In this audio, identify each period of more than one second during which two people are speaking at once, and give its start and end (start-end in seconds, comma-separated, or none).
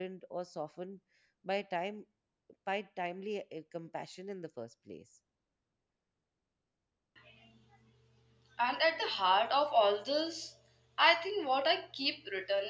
none